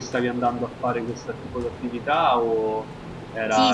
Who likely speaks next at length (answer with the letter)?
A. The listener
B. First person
A